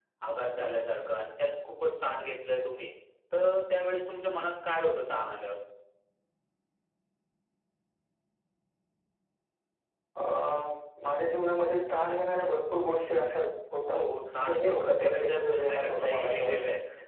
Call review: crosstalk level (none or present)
present